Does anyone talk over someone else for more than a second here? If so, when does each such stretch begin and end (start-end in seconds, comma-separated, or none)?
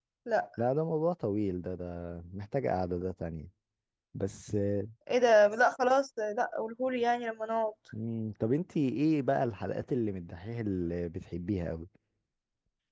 none